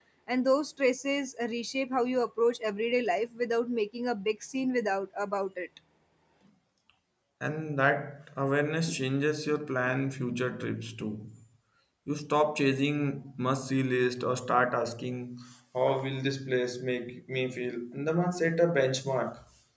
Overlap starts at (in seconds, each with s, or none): none